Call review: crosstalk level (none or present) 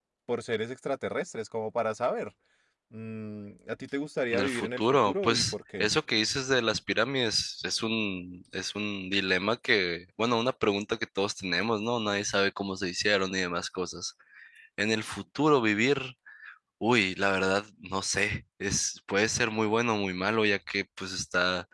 present